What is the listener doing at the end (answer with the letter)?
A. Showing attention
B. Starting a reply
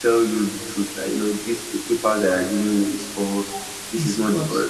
A